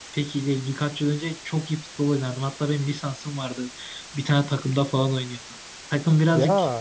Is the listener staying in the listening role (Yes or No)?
Yes